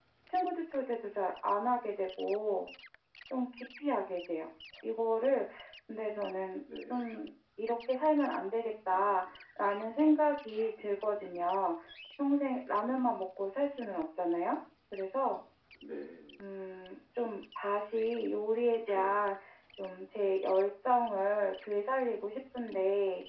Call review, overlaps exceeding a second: none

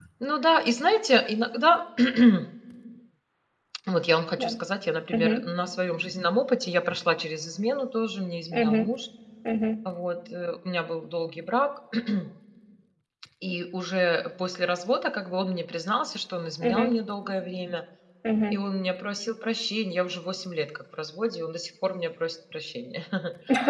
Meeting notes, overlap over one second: none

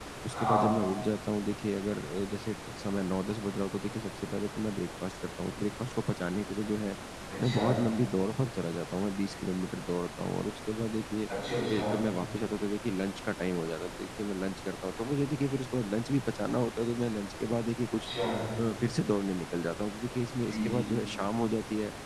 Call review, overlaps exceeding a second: none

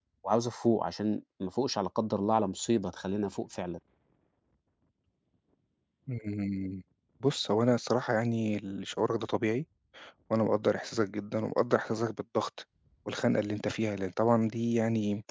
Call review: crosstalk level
none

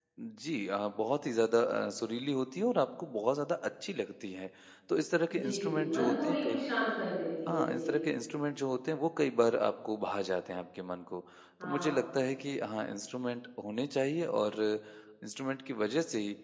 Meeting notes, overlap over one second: present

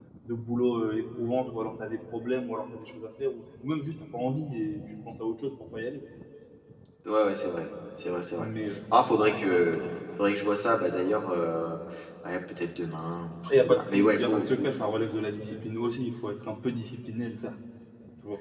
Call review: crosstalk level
present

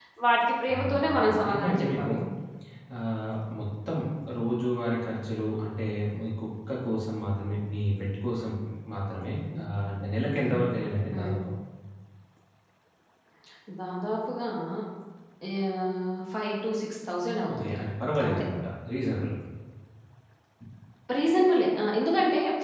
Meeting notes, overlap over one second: present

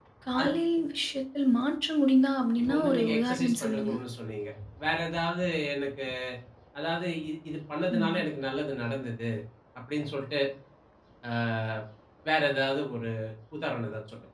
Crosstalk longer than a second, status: present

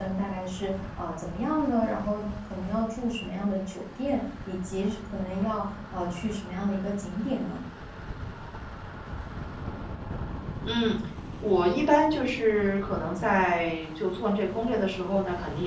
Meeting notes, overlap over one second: none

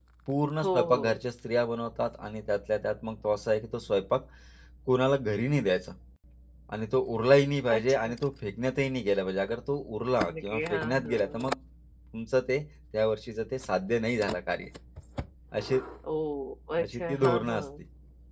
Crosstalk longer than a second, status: present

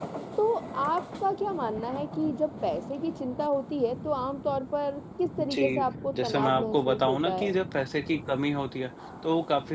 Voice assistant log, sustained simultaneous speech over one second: present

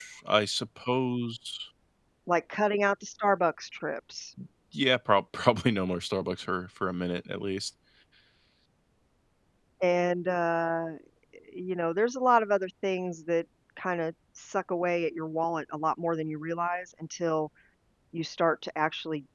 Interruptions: none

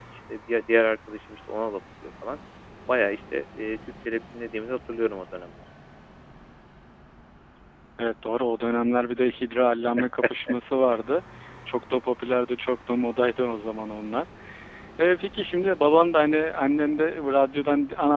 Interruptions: none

